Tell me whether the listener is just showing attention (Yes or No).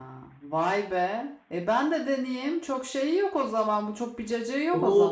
No